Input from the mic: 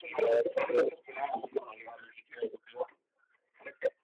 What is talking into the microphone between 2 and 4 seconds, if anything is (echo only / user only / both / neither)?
echo only